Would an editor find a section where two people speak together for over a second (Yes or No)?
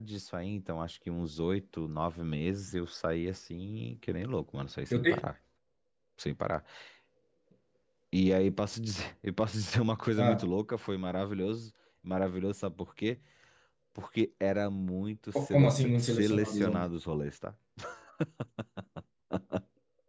Yes